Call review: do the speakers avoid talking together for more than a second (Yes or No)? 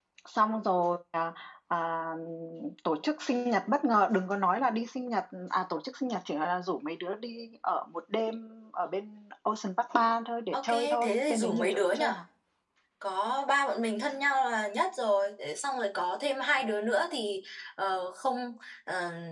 No